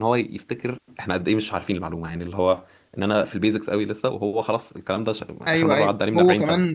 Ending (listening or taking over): taking over